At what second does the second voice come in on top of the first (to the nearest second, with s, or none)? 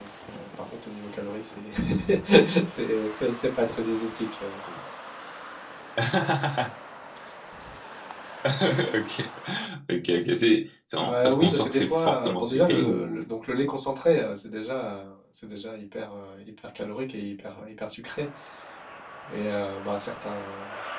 11 s